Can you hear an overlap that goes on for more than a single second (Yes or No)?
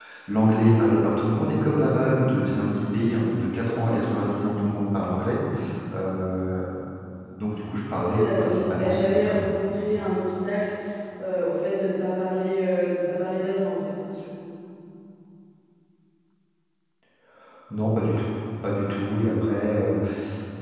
Yes